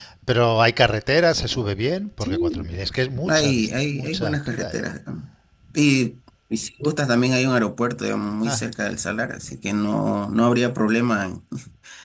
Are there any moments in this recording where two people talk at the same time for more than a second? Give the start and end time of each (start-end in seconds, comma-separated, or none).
3.3-4.9